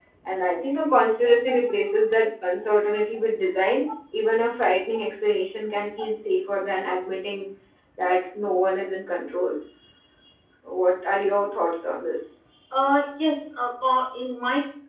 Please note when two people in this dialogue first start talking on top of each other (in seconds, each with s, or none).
none